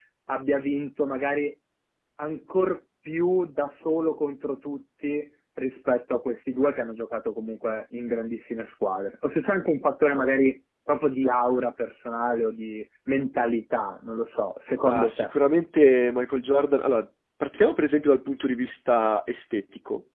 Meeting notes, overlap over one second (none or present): none